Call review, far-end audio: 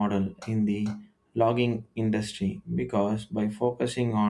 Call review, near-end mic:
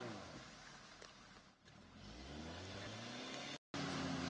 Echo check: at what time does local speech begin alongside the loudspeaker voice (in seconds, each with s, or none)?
none